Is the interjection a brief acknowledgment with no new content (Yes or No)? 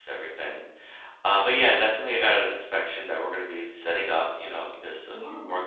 Yes